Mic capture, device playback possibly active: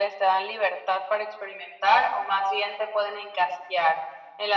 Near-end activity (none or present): none